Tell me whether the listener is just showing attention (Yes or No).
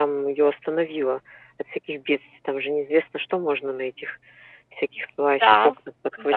No